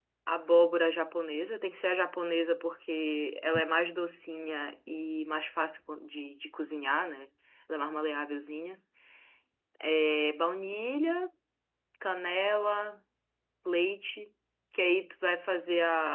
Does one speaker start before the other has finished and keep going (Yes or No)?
No